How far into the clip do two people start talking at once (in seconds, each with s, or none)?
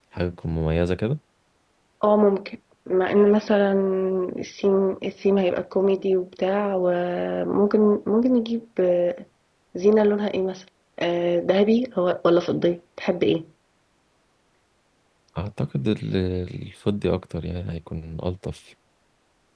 none